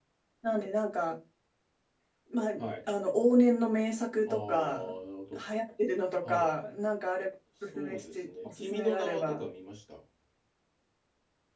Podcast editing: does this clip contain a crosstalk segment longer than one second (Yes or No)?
Yes